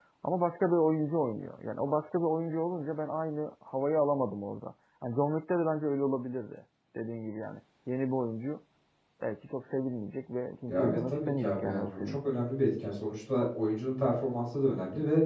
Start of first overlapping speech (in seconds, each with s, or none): 10.7 s